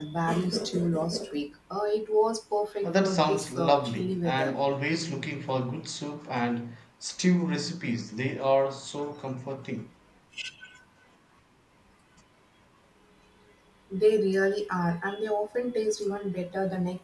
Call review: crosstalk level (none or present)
present